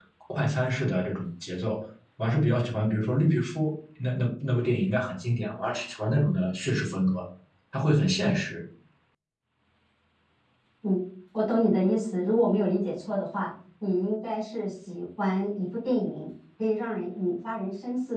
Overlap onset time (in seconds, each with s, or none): none